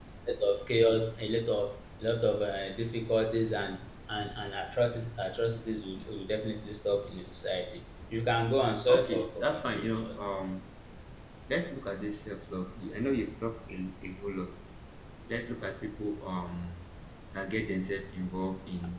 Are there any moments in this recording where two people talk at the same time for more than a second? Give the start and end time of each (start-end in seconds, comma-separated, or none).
8.9-10.2